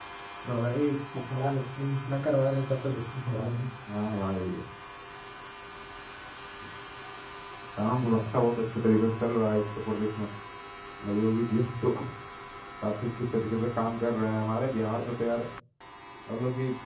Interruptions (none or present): none